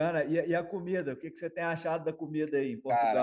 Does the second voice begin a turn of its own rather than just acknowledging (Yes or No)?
Yes